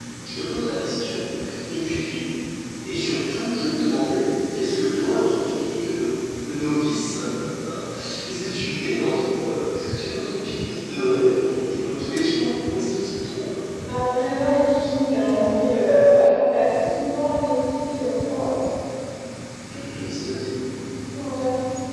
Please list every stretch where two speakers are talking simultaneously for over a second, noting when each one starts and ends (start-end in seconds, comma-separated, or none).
none